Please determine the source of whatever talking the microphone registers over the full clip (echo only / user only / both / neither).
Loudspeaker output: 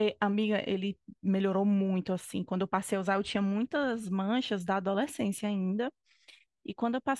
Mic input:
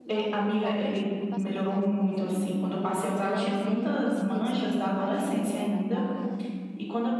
both